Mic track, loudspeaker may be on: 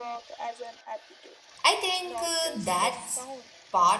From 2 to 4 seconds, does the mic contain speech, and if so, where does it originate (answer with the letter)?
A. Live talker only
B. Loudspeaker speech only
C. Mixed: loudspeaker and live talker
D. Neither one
C